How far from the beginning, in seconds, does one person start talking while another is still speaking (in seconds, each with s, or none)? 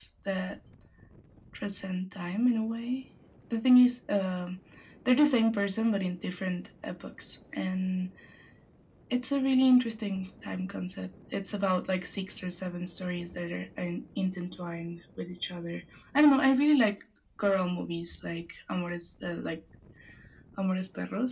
none